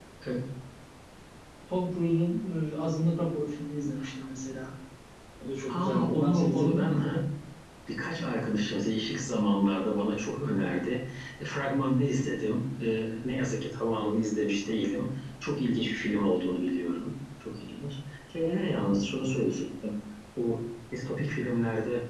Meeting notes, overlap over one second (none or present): present